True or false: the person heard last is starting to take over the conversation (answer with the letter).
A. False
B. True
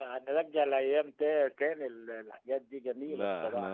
B